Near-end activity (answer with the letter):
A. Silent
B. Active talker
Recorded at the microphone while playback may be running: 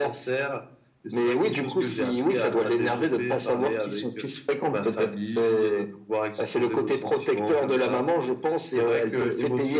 A